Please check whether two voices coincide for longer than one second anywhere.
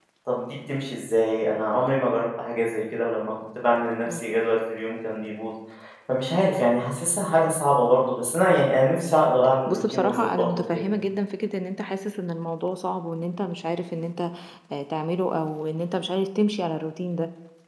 Yes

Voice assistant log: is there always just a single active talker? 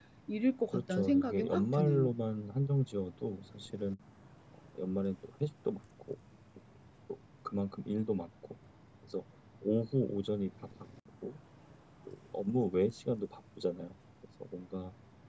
No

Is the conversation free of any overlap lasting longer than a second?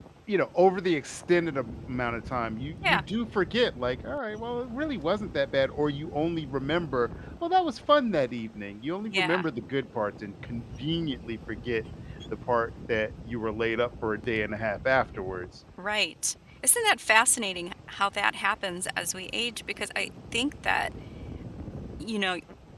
Yes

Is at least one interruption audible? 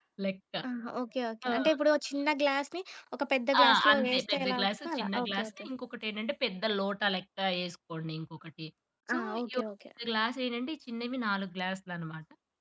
Yes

